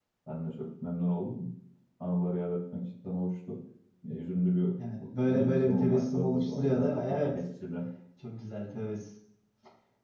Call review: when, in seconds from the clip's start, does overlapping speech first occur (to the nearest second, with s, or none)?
5 s